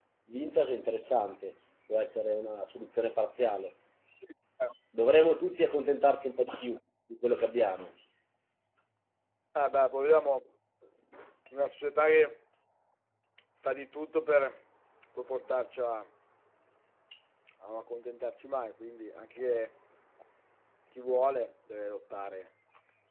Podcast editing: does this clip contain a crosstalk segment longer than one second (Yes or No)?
No